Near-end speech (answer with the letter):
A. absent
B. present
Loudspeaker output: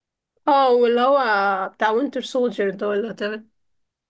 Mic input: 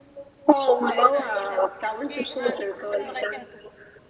B